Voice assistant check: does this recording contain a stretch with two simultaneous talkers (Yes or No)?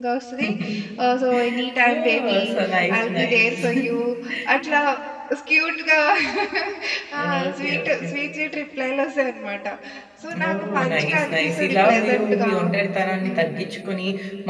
Yes